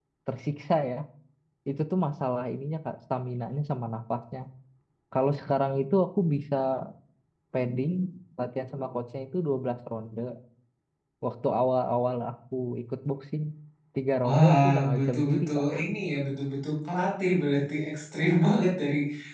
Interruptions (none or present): present